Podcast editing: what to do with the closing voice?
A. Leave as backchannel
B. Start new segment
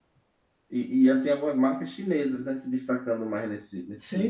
B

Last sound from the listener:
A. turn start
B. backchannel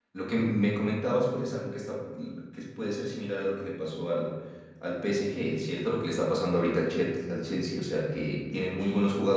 B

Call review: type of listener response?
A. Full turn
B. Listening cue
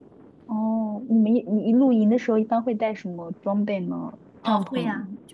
A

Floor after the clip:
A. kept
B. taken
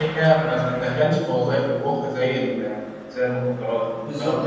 B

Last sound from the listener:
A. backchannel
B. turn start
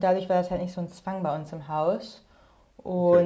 A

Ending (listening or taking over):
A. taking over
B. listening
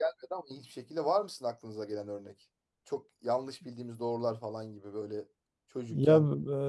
A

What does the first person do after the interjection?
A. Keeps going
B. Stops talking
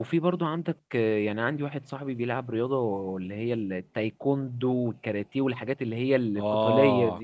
B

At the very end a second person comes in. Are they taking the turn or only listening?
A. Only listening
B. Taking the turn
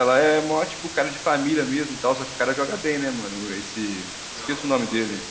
B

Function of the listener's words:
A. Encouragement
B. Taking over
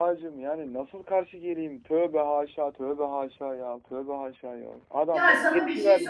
B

